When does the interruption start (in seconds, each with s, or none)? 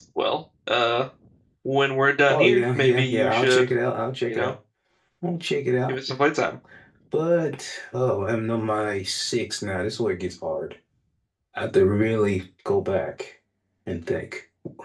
2.3 s